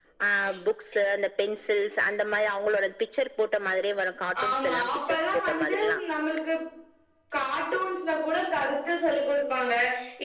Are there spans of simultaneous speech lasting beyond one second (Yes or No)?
Yes